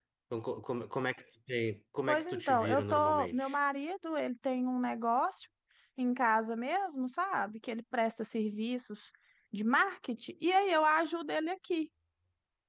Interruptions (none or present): present